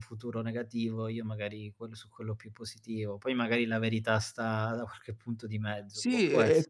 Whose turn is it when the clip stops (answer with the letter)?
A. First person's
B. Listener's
B